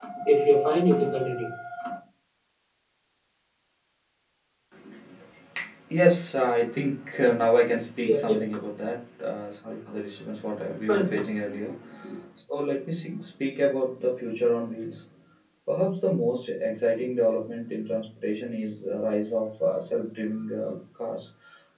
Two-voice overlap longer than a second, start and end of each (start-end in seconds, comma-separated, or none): none